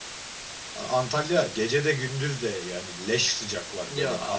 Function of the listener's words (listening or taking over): taking over